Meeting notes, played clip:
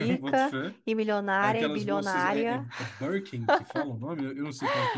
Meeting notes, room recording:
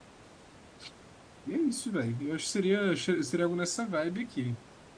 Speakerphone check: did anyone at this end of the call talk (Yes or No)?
Yes